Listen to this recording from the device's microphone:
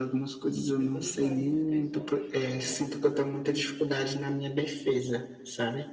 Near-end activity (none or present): present